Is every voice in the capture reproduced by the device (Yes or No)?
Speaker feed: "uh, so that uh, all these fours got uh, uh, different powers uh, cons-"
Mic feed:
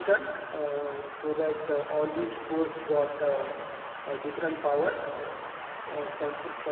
Yes